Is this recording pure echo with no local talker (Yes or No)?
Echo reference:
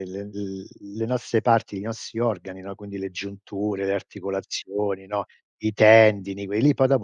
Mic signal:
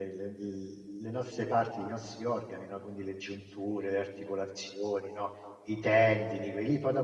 Yes